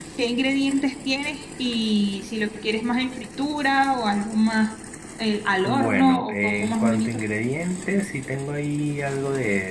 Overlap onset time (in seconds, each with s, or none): 5.7 s